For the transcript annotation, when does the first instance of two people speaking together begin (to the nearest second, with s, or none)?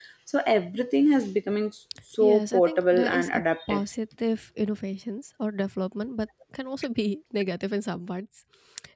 2 s